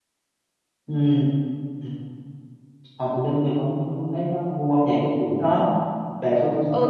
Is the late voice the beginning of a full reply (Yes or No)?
Yes